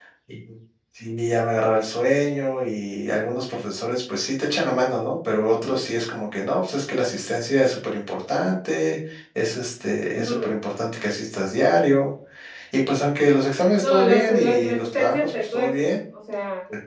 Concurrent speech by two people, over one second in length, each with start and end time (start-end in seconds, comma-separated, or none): 13.8-16.0